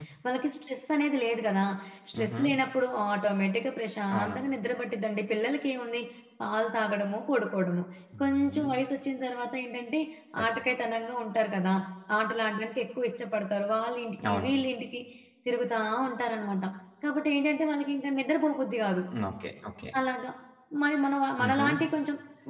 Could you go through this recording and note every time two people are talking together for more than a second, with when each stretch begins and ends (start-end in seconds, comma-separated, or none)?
none